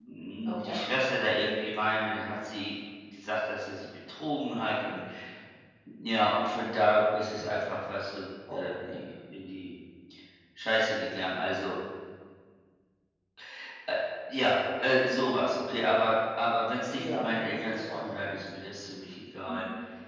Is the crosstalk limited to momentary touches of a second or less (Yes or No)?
No